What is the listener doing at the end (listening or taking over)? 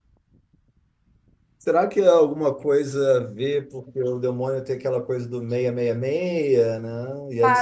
taking over